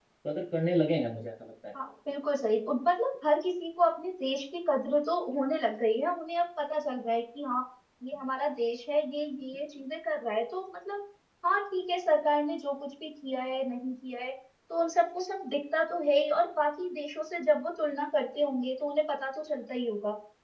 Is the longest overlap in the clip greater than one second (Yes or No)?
No